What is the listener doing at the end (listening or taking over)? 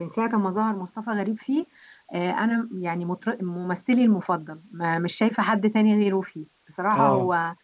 listening